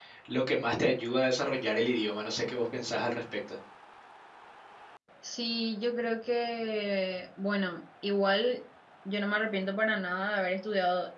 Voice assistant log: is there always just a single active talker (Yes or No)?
Yes